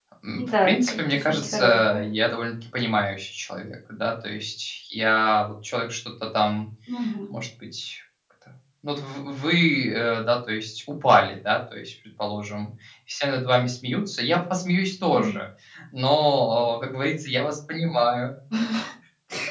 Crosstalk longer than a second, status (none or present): present